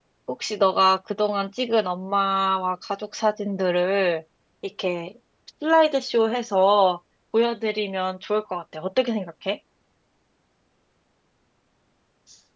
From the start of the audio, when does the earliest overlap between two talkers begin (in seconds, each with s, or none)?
none